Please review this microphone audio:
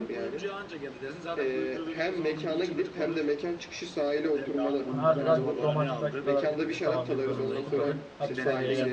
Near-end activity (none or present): present